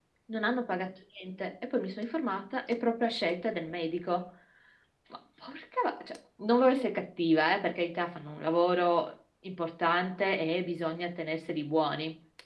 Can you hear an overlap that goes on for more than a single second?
No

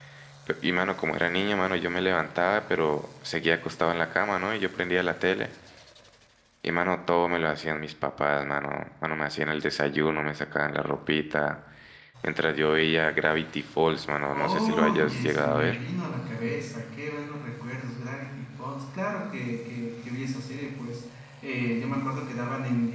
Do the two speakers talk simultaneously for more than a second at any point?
Yes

